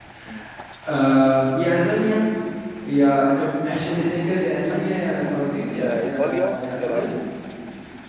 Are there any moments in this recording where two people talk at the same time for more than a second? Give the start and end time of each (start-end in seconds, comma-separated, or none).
5.8-7.1